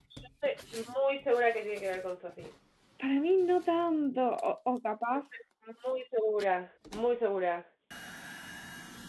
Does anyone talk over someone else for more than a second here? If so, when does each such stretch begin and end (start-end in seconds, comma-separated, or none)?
none